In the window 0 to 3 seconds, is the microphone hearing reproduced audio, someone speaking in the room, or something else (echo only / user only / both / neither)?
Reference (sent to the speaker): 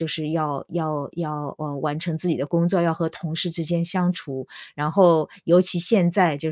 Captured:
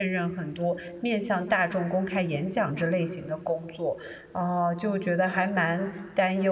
user only